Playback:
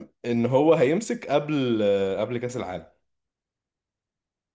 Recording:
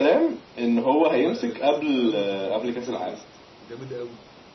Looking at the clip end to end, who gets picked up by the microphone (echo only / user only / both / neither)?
both